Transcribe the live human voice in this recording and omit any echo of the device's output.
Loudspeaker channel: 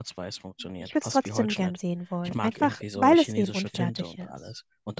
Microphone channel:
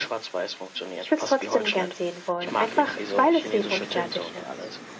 none

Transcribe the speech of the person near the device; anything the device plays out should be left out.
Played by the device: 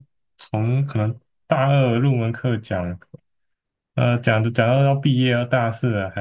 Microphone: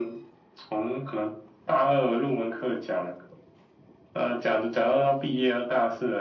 none

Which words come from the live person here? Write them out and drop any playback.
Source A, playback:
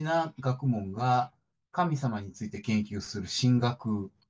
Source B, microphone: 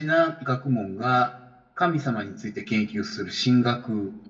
none

